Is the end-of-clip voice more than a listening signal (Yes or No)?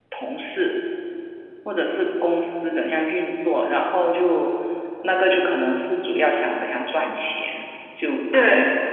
No